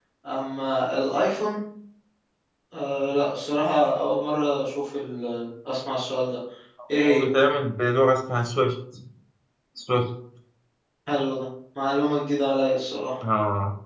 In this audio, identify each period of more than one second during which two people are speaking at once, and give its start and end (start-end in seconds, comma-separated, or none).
none